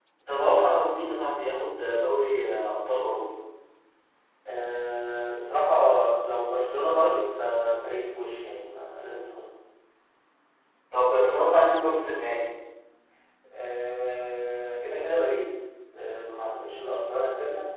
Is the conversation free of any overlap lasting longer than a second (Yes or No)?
Yes